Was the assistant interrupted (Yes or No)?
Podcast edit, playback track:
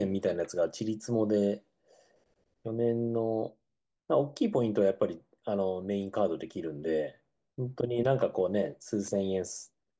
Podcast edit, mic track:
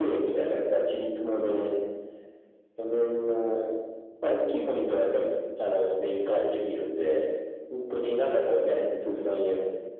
No